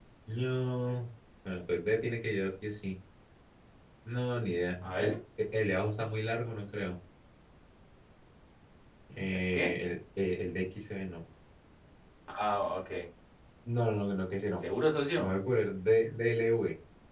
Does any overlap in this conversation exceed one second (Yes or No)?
No